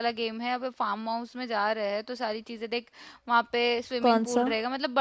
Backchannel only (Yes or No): Yes